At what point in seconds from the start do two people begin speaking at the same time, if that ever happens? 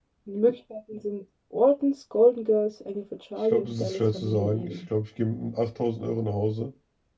3.5 s

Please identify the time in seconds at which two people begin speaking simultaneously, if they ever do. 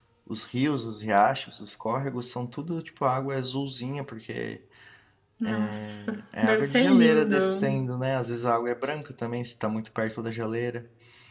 5.4 s

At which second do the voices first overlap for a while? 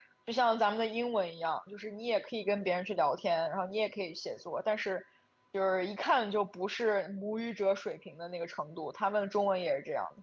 none

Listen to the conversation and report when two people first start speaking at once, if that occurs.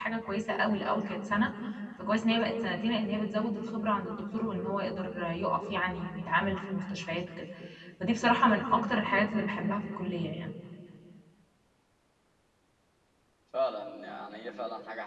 none

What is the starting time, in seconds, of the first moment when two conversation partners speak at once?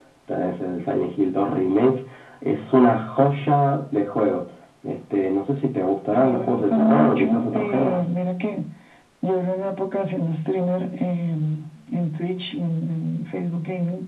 6.1 s

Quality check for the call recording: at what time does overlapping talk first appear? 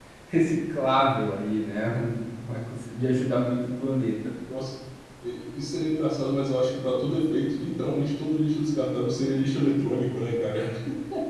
none

